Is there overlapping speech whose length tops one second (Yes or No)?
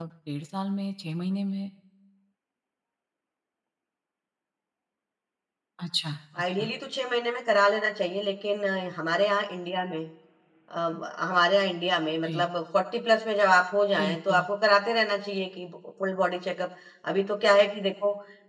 No